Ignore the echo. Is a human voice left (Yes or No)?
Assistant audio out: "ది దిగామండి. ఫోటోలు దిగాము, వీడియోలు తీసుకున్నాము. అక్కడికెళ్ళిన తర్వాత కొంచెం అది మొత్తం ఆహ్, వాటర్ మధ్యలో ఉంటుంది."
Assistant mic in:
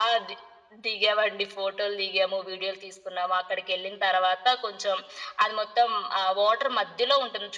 No